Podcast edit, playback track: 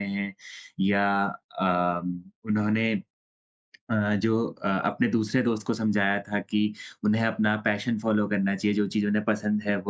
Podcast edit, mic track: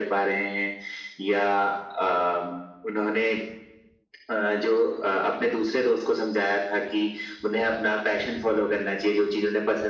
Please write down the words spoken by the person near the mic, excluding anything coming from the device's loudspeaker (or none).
none